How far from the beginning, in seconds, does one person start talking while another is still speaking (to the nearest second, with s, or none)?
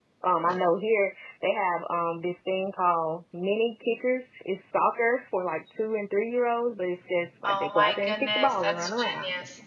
7 s